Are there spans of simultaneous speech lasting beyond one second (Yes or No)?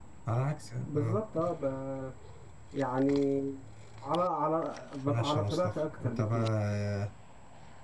Yes